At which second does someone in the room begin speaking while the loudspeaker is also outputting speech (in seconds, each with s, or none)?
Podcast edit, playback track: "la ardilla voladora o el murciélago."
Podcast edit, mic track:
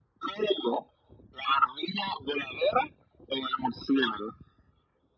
none